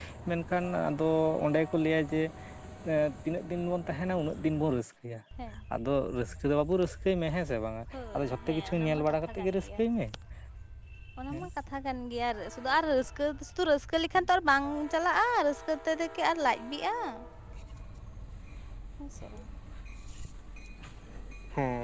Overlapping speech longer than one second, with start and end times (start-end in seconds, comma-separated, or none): 7.9-9.8